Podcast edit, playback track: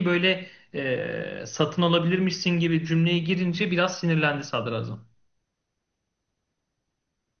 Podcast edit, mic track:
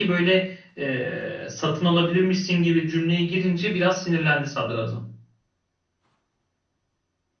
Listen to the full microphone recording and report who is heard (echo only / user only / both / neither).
echo only